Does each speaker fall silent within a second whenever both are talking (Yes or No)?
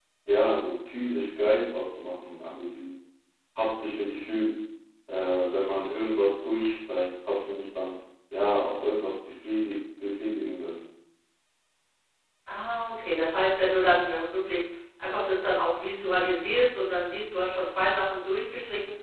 Yes